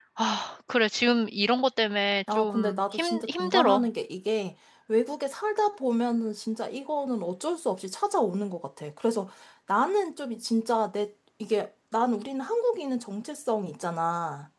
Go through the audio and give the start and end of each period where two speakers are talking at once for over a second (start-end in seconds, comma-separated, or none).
2.3-3.9